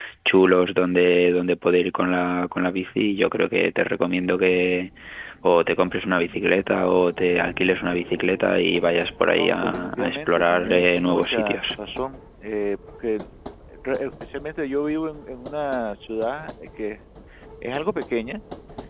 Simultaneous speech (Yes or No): Yes